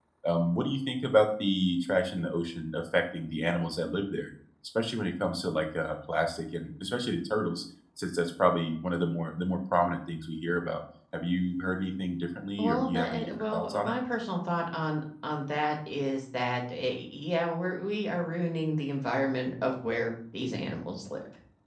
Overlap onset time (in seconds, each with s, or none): 12.6 s